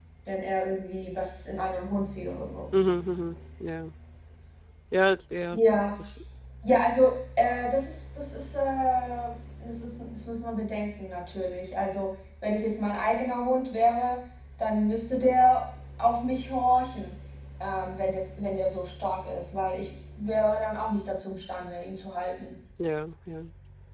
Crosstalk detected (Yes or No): No